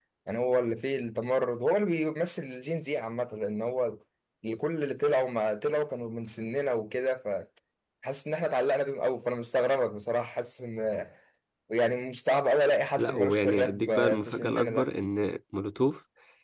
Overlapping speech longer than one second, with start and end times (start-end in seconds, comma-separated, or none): 13.0-14.9